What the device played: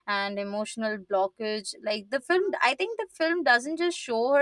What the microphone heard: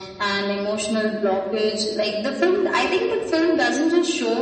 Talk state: echo only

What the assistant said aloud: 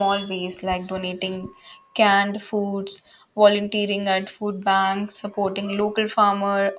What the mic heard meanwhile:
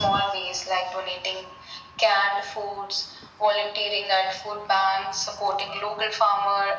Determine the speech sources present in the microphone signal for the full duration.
echo only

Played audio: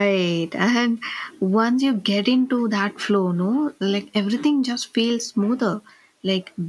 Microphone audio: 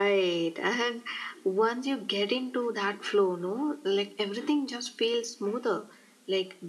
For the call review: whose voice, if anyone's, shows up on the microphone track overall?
echo only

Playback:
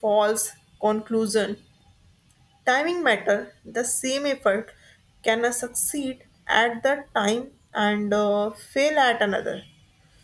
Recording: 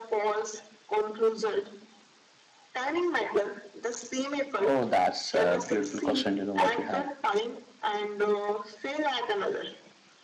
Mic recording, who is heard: both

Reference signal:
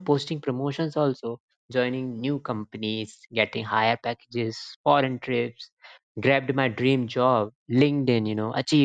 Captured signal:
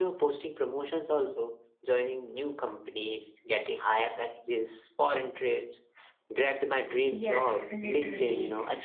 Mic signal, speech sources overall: both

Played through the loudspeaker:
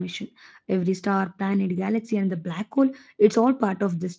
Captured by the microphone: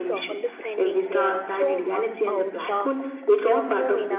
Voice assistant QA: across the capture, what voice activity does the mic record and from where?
both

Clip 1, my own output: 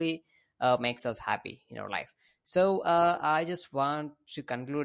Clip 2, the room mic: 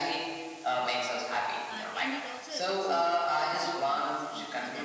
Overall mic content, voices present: both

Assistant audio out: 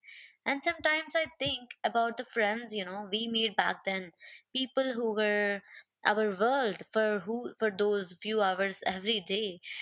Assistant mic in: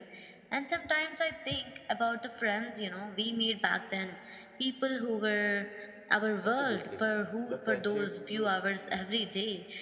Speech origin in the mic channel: both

